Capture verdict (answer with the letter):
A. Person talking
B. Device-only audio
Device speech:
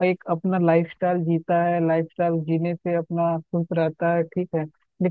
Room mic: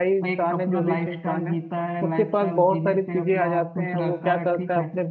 A